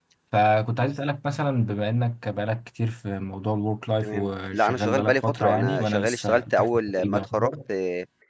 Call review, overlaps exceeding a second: present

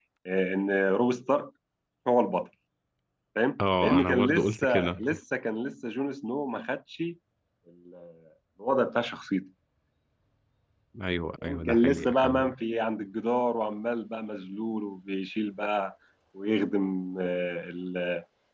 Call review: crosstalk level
present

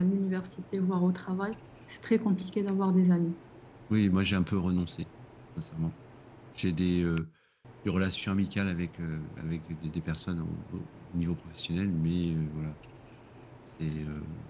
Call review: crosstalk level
none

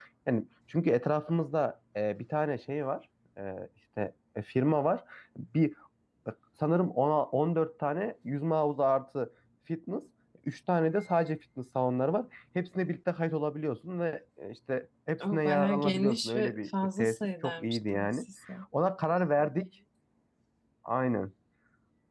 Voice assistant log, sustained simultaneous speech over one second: present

